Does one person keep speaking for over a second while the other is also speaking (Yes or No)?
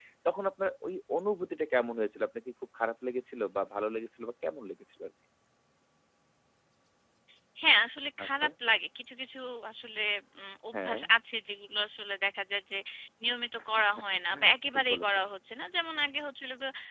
No